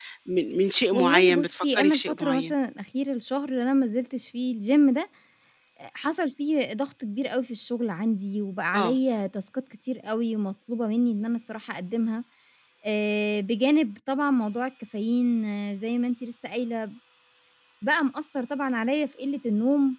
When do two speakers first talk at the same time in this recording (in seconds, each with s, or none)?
0.9 s